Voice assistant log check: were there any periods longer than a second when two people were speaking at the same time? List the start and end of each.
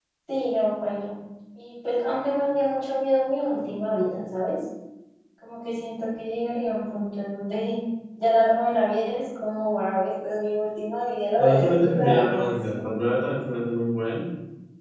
11.4-12.8

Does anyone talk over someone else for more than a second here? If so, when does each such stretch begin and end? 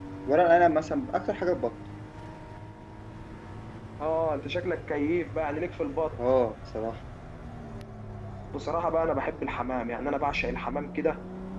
none

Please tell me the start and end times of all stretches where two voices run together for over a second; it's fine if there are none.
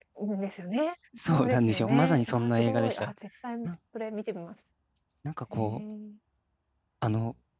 1.3-3.1

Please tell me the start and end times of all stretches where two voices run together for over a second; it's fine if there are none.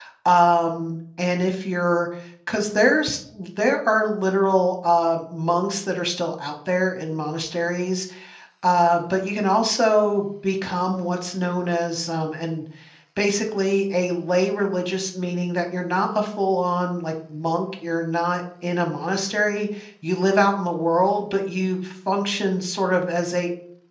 none

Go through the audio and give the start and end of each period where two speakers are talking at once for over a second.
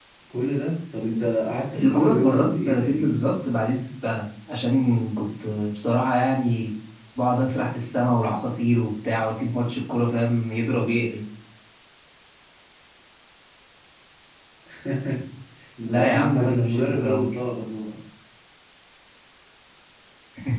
1.8-3.2, 15.8-17.3

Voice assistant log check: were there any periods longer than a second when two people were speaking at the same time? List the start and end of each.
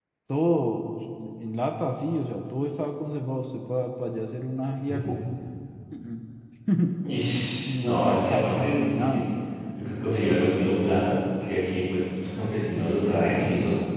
7.6-9.2

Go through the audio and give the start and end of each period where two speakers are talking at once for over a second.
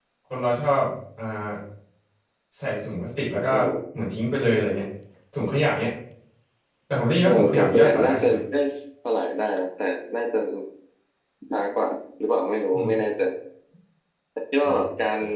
7.1-8.4

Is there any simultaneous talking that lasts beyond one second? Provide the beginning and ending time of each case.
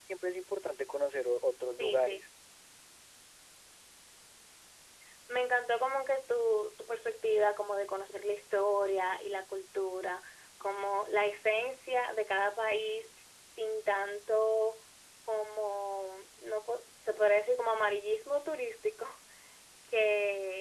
none

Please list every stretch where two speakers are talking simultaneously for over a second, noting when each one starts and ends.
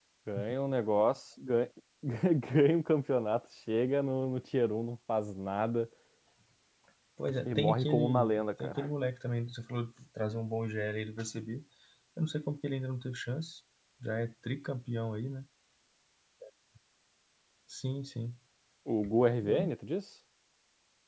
7.5-8.9

